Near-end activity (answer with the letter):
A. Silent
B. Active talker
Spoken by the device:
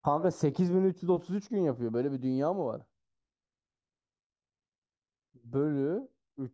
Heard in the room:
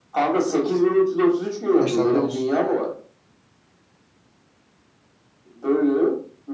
B